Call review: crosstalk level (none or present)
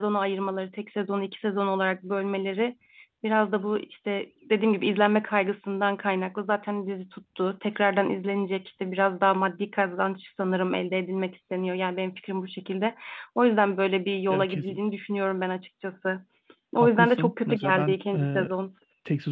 present